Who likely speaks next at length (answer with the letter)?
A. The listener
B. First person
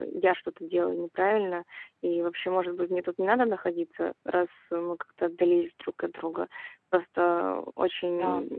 B